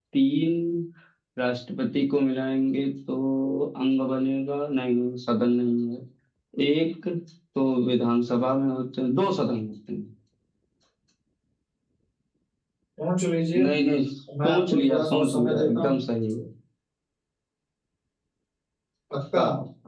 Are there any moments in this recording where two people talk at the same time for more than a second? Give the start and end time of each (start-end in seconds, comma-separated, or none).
14.4-16.0